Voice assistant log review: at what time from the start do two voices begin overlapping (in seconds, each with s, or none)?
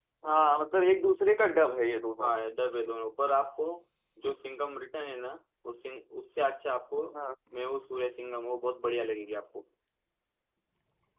none